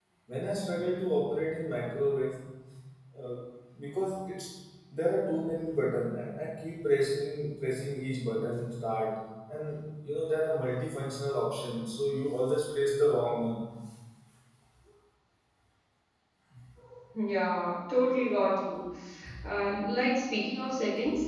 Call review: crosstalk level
none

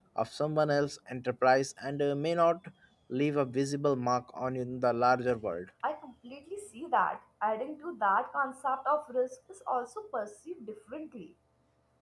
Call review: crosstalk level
none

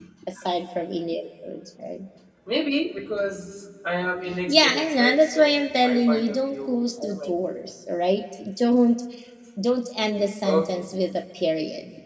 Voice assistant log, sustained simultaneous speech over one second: present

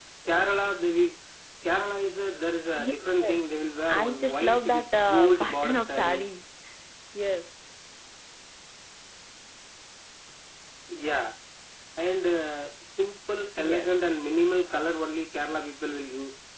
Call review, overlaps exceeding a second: present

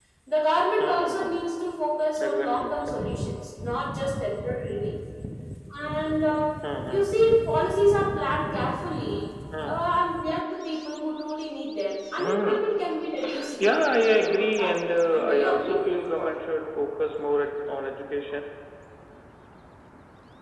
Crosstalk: present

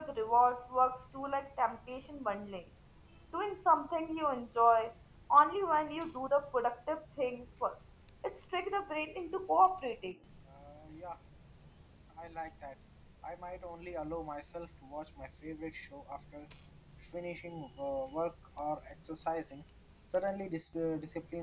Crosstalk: none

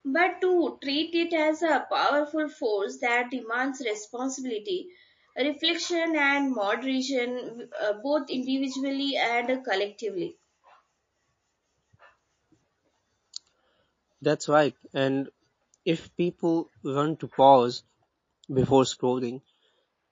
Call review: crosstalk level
none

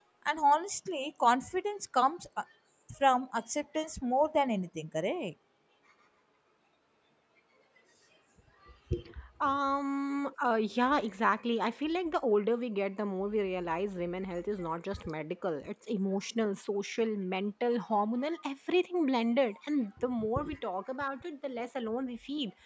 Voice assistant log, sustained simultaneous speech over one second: none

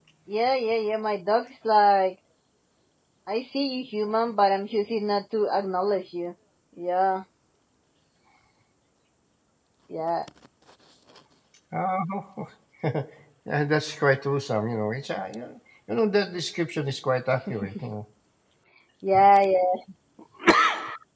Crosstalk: none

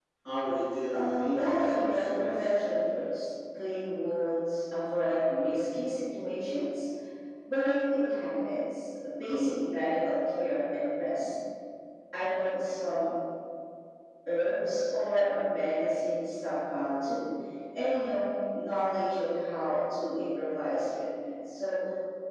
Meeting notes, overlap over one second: present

